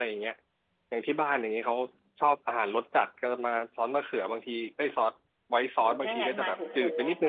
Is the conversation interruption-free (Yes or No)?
No